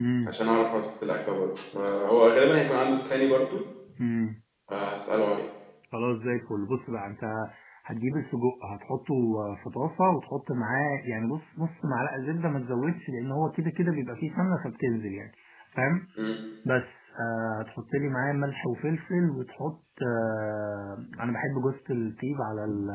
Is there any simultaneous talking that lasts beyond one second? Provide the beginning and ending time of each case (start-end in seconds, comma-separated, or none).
none